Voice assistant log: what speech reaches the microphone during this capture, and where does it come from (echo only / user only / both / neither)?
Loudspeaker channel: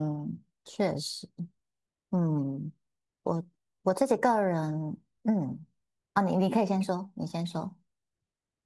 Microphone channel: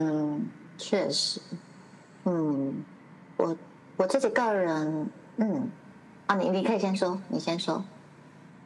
echo only